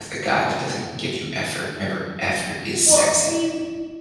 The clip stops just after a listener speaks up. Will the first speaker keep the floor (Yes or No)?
No